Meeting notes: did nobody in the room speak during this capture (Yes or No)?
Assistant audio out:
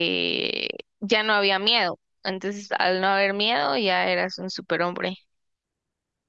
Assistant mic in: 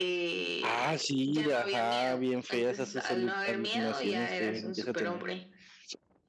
No